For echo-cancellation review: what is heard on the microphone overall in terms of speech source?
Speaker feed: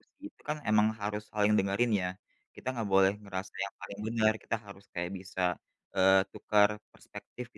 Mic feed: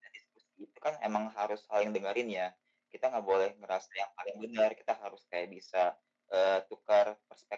echo only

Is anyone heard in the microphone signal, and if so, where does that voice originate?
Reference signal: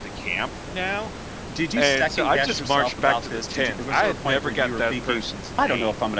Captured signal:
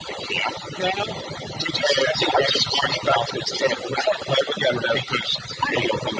echo only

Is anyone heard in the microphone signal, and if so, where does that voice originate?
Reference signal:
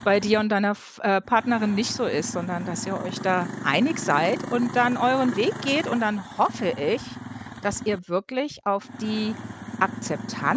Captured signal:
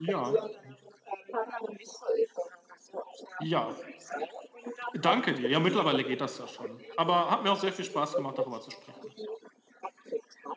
both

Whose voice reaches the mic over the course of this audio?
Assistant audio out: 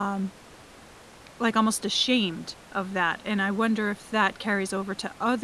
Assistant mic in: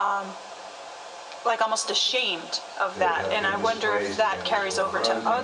both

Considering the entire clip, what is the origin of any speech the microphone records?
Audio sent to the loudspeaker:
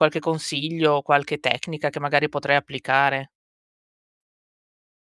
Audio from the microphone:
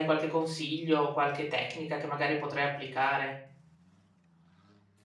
echo only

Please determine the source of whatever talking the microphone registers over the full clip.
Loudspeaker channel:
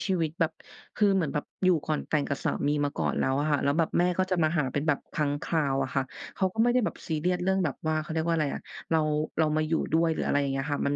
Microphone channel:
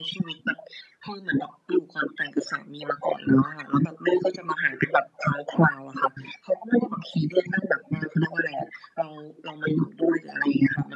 echo only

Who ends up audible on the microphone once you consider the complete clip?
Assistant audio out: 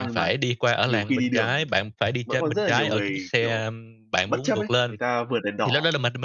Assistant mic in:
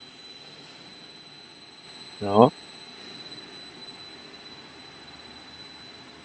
user only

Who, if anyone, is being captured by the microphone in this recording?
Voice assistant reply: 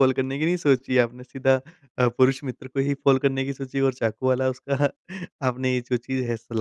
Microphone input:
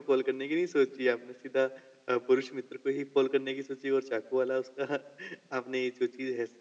echo only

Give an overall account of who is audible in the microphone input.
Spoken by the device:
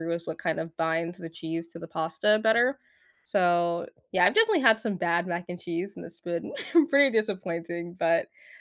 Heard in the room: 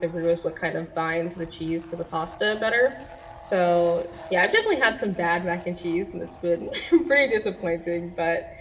echo only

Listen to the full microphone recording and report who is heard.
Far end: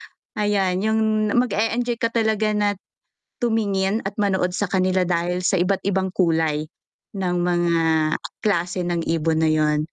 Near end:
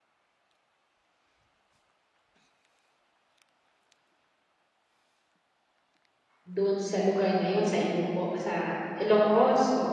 user only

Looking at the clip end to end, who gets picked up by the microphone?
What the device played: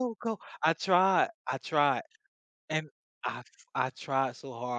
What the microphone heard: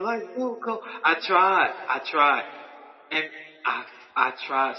echo only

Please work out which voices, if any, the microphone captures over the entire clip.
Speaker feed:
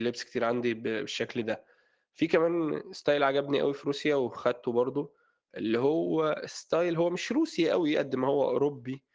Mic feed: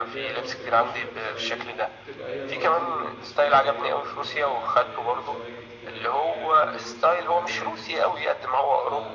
both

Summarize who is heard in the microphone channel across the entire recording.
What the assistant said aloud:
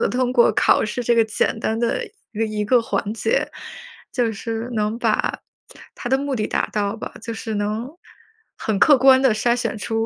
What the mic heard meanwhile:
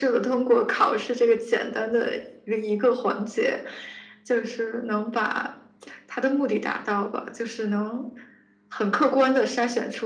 echo only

